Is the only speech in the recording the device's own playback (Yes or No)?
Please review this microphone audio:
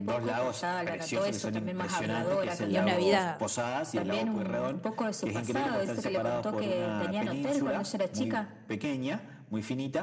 No